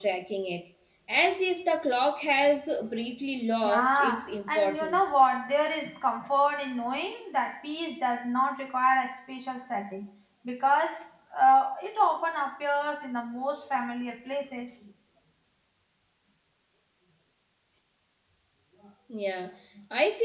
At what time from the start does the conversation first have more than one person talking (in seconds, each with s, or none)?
3.6 s